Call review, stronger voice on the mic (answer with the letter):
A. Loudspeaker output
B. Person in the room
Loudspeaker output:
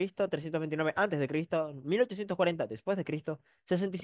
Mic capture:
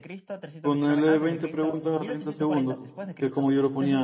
B